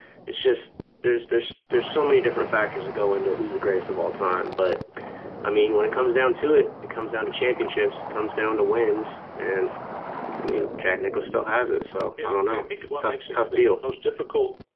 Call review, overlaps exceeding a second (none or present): present